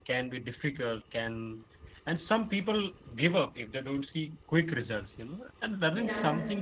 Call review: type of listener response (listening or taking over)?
listening